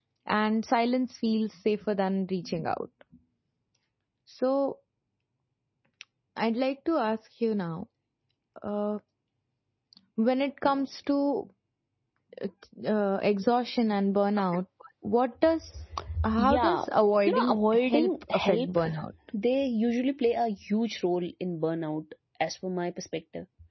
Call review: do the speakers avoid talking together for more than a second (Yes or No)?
No